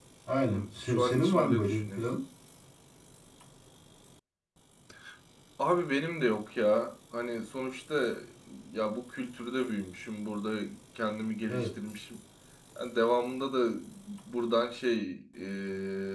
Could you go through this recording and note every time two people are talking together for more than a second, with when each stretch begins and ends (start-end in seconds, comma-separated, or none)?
0.5-2.0